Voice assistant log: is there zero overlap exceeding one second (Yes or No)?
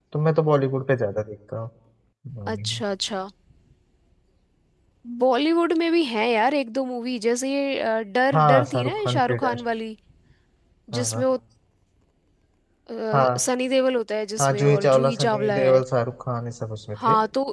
No